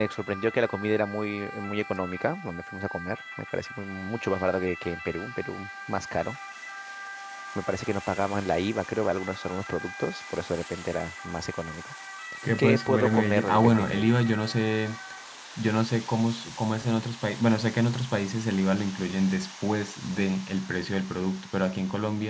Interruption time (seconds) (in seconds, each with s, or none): 12.6 s